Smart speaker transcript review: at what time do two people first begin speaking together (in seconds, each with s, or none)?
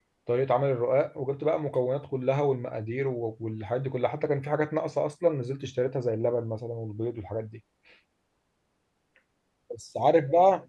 none